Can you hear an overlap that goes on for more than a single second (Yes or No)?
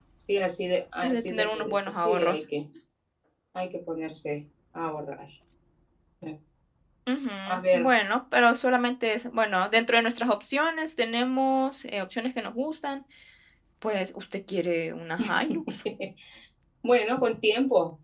Yes